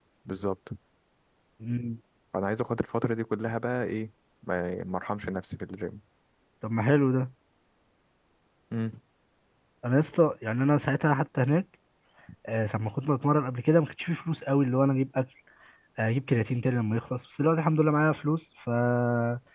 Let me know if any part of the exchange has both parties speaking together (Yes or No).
No